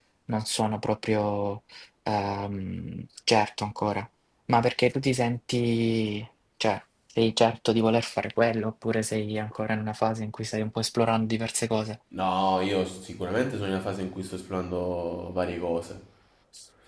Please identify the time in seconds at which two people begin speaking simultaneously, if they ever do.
none

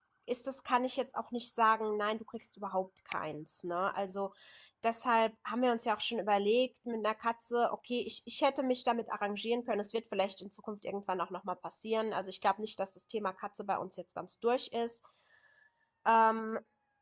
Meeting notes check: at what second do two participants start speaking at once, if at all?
none

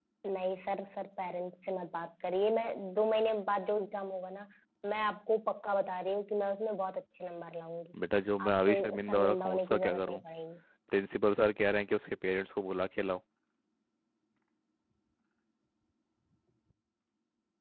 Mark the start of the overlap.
8.5 s

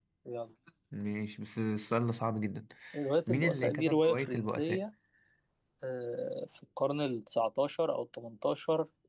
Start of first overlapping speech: 3.3 s

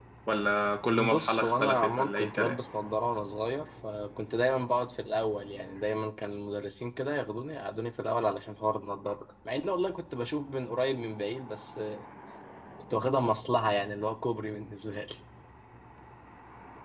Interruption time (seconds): 1.0 s

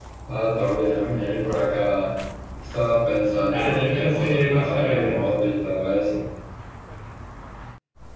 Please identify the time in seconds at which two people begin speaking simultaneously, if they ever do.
3.5 s

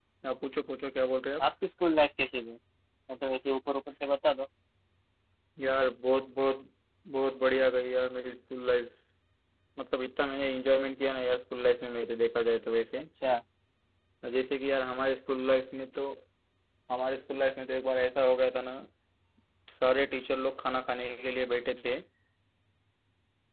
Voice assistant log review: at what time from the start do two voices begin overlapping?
none

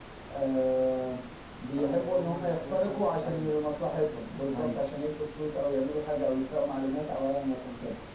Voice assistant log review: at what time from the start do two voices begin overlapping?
1.8 s

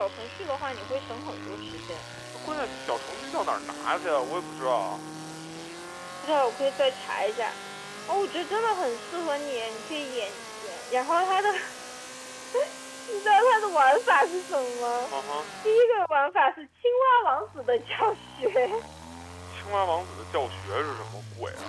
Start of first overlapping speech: none

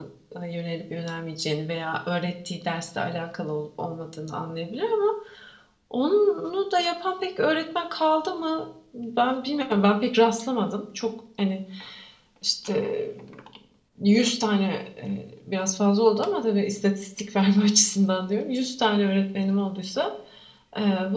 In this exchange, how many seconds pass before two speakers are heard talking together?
none

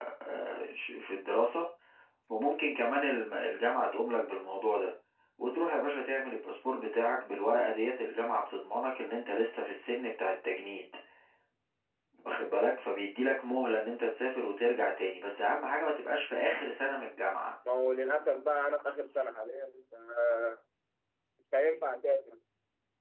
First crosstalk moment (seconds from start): none

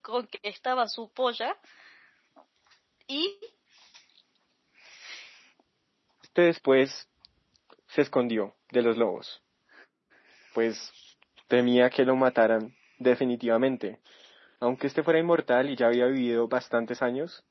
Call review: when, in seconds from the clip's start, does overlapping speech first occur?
none

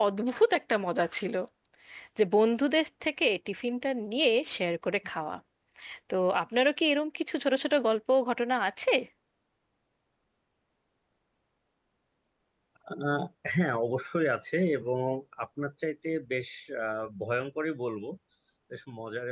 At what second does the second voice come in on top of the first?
none

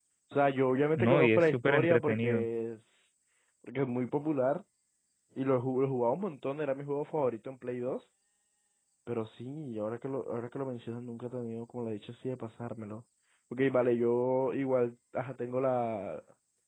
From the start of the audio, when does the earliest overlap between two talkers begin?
1.0 s

